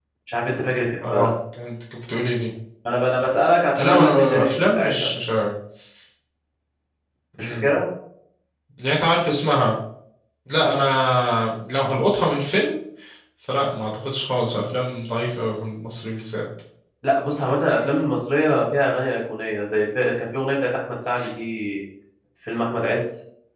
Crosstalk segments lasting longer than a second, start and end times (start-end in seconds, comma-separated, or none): 3.8-5.1